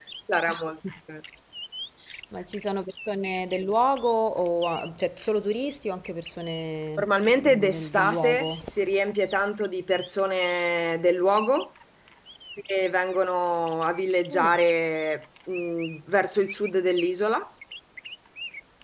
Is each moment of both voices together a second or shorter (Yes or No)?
No